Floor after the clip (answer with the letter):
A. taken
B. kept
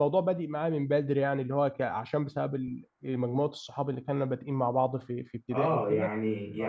A